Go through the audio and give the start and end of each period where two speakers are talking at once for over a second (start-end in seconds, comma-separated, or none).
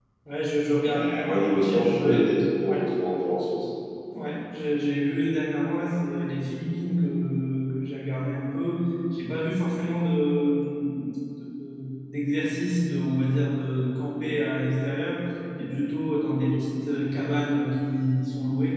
0.8-2.8